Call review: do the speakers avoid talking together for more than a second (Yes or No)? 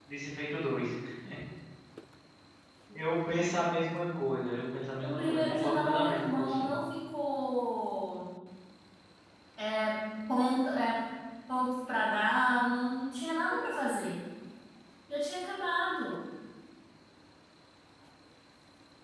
No